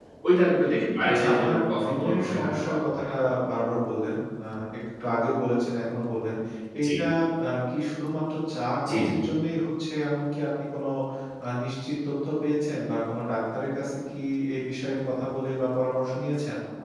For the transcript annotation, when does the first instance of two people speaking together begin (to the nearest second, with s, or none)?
1 s